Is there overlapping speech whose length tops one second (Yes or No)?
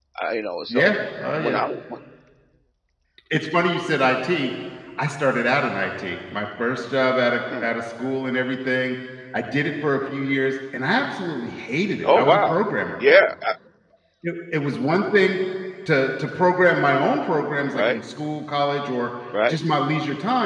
No